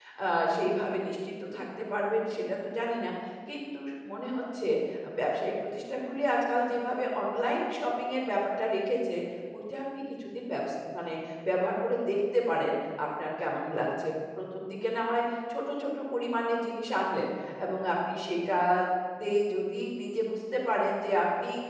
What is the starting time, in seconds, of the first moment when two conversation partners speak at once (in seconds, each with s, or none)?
none